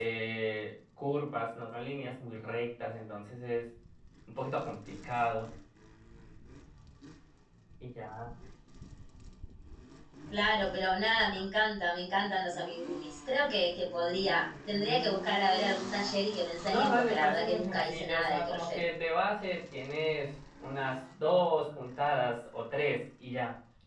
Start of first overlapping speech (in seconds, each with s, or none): 16.7 s